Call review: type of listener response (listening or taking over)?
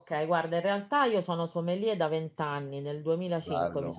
listening